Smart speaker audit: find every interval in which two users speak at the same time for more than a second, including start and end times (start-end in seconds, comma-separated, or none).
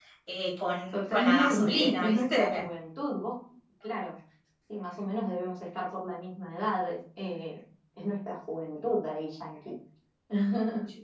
0.9-2.6